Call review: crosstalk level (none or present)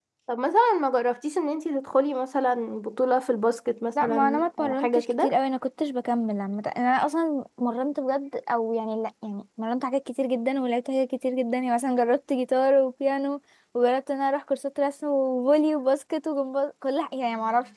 present